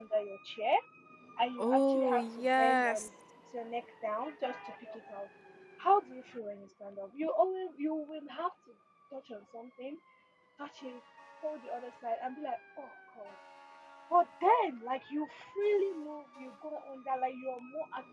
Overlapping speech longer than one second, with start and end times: 1.6-3.1

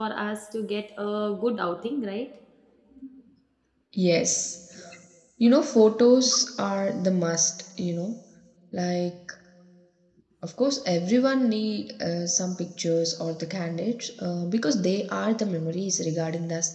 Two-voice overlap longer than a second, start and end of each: none

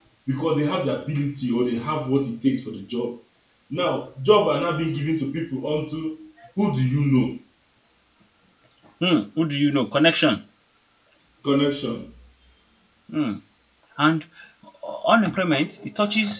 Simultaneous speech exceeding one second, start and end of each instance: none

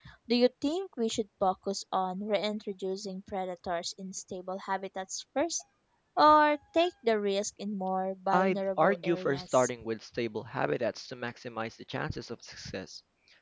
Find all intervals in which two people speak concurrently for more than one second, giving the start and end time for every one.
8.3-9.7

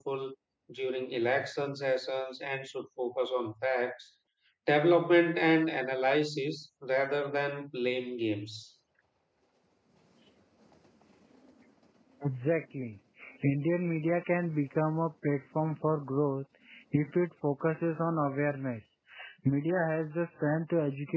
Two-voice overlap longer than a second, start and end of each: none

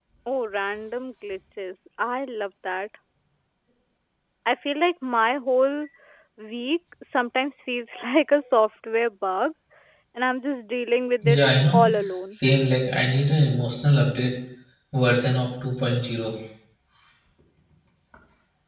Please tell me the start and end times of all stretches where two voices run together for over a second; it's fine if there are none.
none

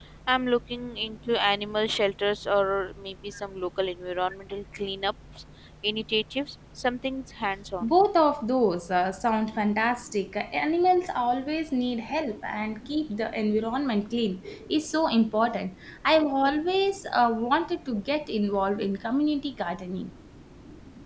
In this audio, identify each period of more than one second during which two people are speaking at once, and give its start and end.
none

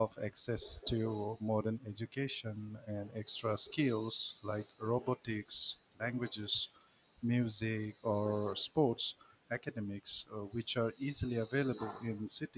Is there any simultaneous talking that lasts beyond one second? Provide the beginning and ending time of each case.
none

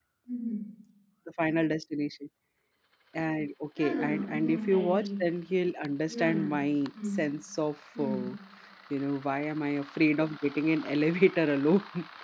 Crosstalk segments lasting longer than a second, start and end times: 3.8-5.1

